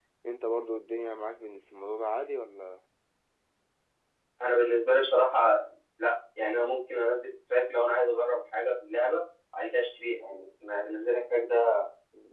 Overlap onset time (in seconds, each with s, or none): none